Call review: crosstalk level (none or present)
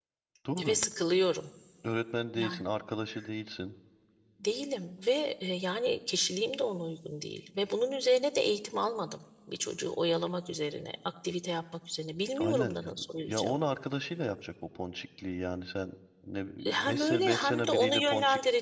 present